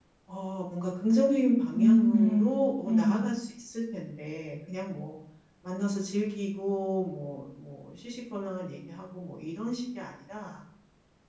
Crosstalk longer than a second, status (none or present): present